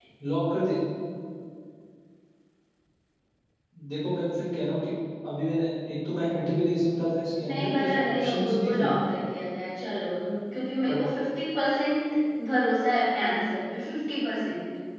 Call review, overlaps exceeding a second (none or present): present